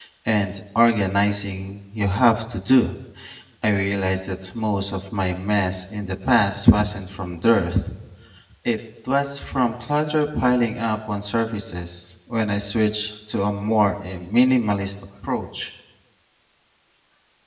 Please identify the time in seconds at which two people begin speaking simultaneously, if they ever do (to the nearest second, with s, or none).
none